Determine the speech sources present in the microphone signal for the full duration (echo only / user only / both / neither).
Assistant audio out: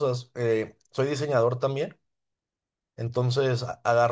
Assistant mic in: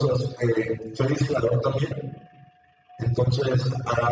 echo only